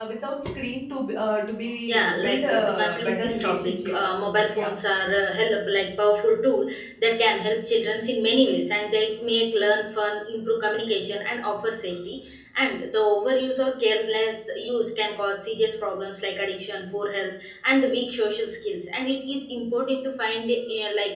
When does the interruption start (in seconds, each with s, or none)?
1.9 s